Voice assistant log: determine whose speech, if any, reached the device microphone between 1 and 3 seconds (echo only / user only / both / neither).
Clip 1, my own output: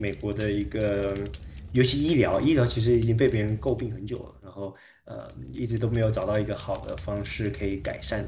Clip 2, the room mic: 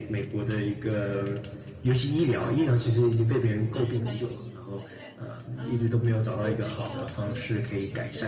echo only